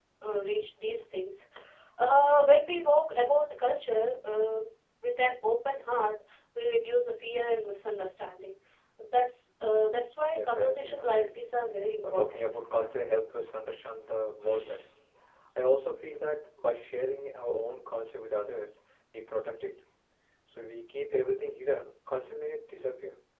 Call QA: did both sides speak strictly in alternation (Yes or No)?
No